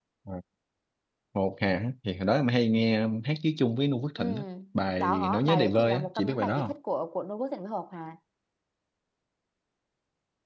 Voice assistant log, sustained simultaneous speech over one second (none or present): present